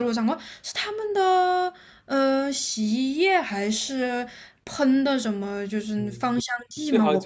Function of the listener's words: taking over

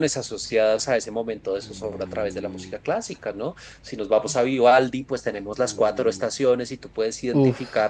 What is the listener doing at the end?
listening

